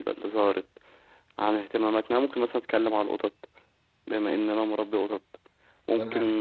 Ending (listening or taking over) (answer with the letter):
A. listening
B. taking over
A